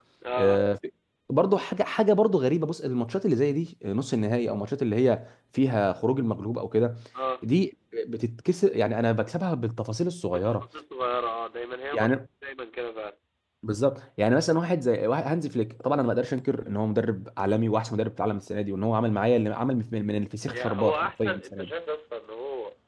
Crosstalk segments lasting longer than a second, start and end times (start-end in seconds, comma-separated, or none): 20.5-21.7